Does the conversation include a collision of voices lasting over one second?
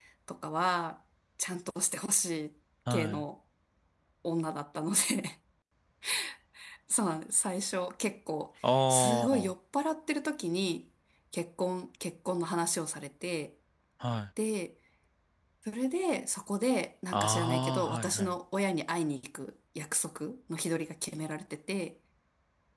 Yes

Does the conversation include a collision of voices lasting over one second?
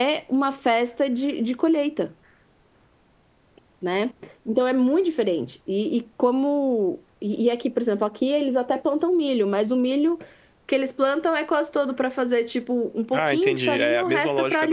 Yes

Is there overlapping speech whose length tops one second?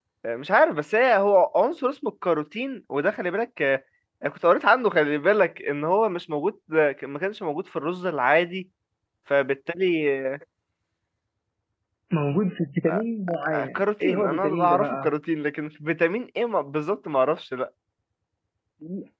Yes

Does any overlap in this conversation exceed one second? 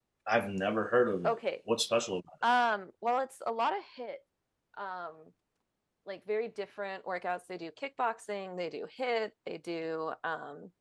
No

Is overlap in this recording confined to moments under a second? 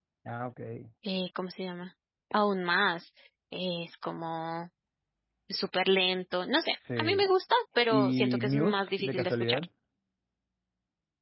No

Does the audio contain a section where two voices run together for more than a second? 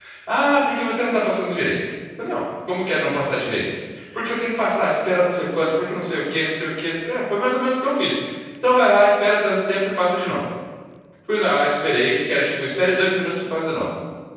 No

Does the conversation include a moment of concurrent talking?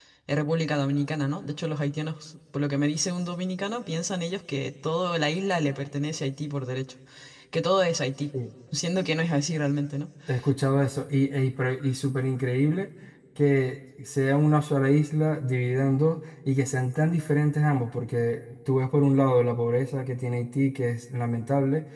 No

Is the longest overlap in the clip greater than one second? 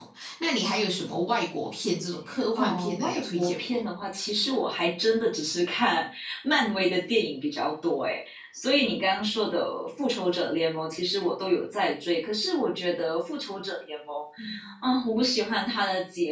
Yes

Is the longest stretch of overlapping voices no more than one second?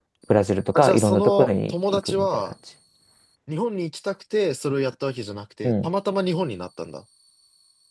No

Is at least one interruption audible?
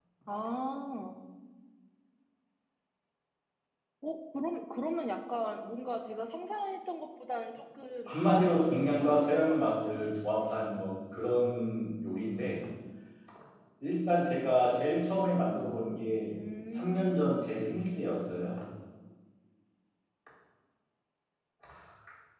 Yes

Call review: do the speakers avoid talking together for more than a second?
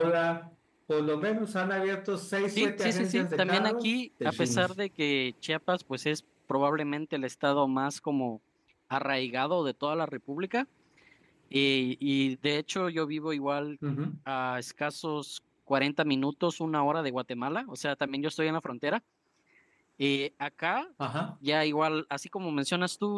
No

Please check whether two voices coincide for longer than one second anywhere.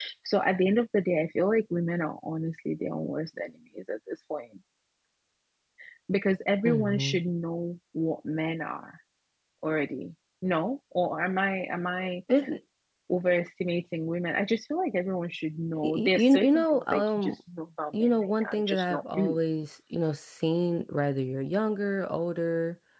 Yes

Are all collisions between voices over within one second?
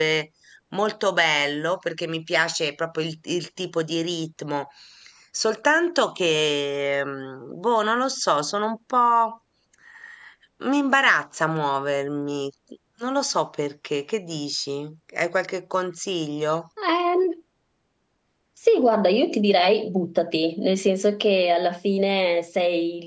Yes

